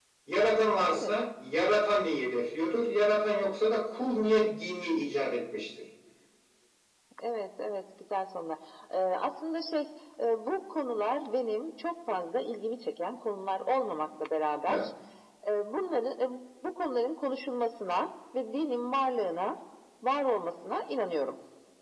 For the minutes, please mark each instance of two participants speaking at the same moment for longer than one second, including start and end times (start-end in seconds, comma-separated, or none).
none